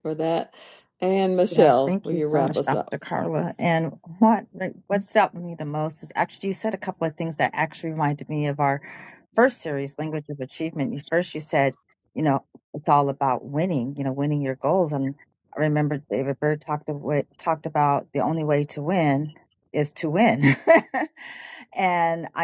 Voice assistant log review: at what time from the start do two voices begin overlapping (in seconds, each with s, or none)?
1.6 s